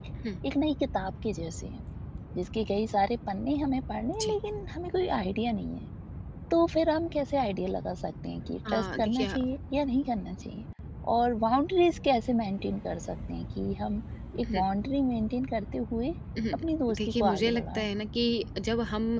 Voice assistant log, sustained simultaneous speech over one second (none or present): present